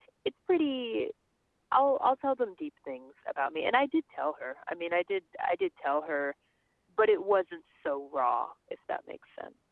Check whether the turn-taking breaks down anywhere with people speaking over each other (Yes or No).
No